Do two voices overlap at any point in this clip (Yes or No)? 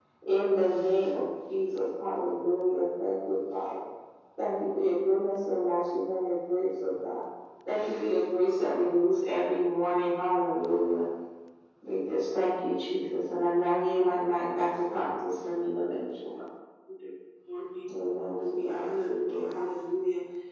Yes